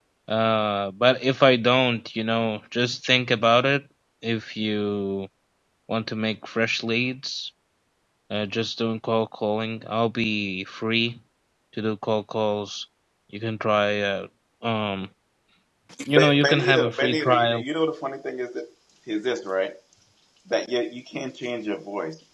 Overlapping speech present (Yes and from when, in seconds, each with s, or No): Yes, from 16.1 s